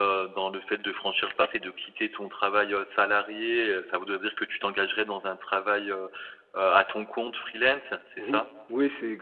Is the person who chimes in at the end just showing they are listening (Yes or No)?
No